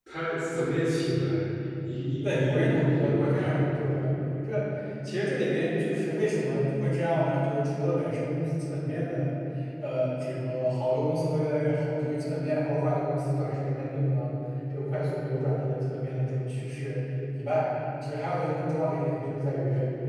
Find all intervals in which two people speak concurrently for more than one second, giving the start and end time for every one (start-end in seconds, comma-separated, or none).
2.2-3.6